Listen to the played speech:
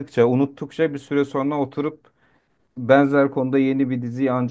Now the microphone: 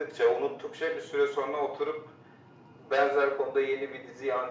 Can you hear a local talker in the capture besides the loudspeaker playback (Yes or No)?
No